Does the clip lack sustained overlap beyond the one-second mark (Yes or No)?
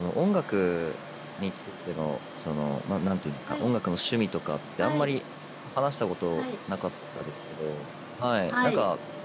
Yes